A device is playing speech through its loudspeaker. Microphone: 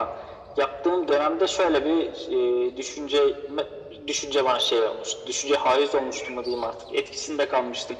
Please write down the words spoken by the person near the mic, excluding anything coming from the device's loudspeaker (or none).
none